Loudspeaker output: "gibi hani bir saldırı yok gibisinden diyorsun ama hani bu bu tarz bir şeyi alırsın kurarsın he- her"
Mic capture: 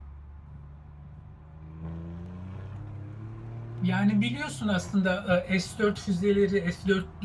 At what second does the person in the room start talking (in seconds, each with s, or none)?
3.8 s